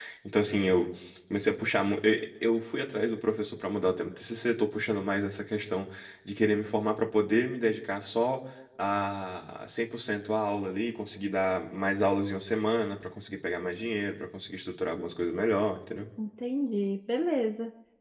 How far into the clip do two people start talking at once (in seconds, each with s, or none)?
none